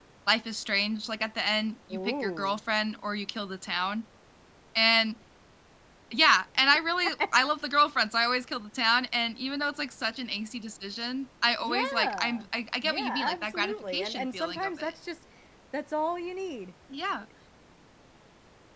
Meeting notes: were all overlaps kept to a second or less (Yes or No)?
No